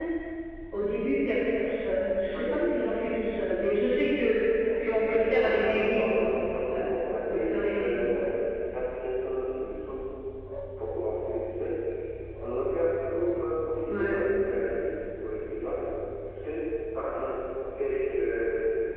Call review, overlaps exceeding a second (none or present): present